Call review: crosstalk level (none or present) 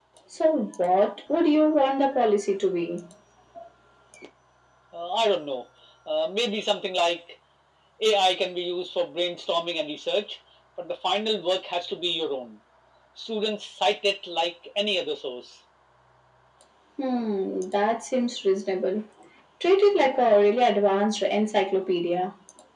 none